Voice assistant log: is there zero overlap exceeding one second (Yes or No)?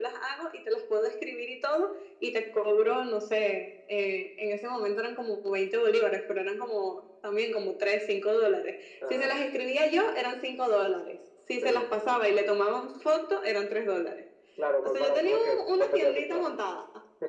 No